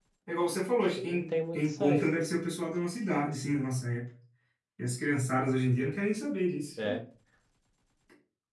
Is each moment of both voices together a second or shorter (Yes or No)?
No